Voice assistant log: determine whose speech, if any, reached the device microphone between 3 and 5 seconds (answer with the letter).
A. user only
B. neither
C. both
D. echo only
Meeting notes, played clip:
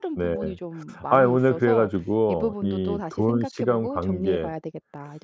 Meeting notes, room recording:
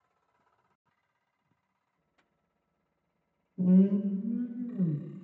A